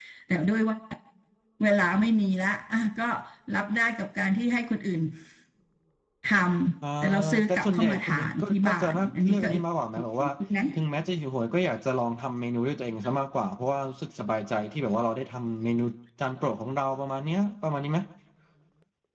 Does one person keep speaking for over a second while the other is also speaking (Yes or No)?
Yes